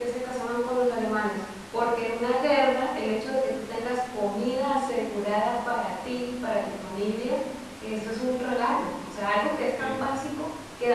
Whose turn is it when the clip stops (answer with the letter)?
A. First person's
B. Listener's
A